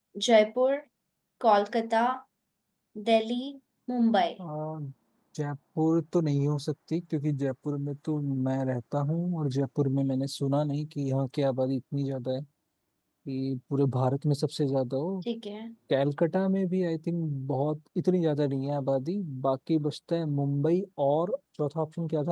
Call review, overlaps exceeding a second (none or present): none